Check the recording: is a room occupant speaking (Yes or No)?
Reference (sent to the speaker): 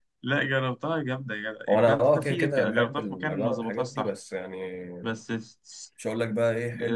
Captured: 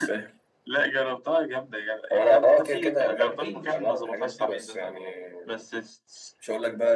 Yes